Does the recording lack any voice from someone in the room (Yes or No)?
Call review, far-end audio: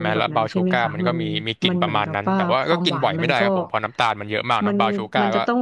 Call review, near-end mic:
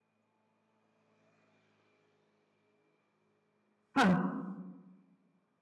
No